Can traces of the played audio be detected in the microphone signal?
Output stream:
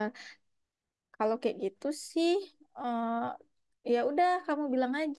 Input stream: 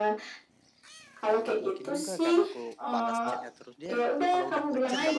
Yes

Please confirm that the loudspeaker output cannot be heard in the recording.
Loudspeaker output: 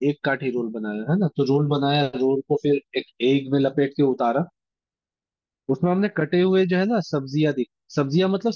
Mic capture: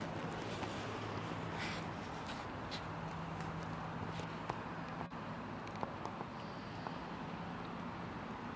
Yes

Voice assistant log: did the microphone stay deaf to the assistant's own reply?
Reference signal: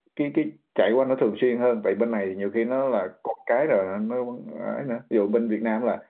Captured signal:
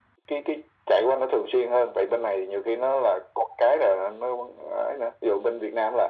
No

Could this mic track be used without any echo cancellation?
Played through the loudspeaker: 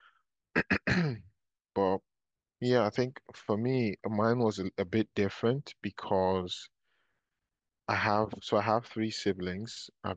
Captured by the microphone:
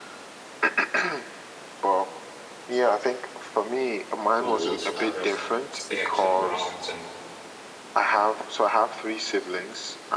No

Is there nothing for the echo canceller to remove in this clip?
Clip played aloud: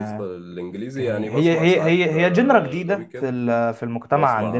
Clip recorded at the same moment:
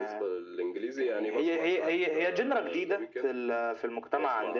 No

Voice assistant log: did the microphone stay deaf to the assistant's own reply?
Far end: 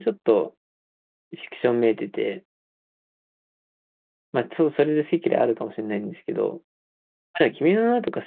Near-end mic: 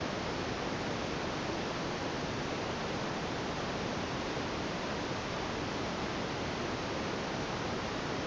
Yes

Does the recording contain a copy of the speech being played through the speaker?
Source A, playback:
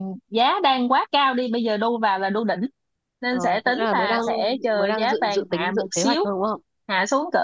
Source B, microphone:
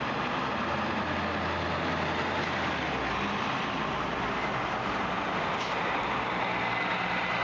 No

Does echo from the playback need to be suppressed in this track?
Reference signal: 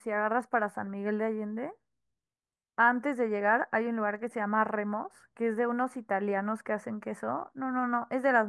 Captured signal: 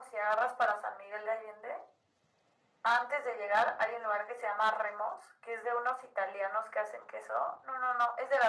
Yes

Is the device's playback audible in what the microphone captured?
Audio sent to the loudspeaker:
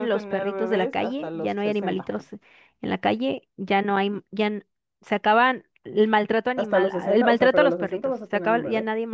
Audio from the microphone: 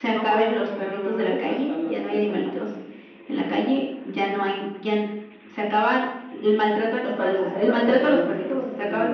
Yes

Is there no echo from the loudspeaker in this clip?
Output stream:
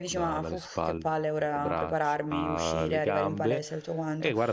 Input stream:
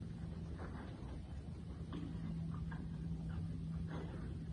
Yes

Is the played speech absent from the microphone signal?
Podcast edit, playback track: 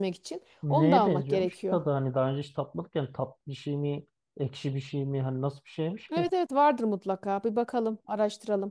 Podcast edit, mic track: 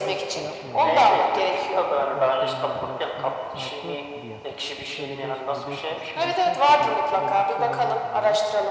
No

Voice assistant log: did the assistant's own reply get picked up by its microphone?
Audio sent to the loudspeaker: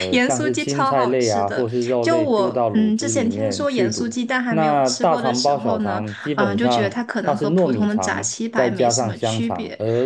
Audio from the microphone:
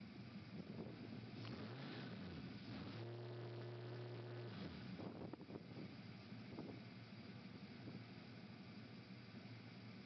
No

